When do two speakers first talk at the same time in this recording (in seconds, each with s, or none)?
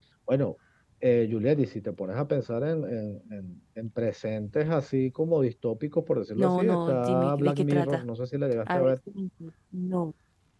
6.4 s